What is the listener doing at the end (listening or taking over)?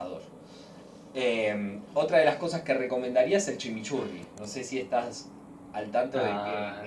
taking over